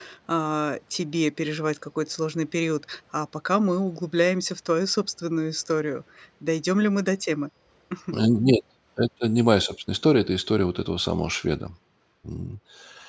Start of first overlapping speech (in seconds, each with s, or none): none